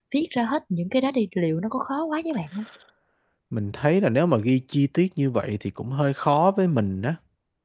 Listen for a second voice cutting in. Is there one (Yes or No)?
No